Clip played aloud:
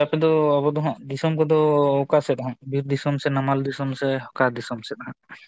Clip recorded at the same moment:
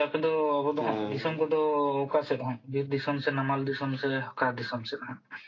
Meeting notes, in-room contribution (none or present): present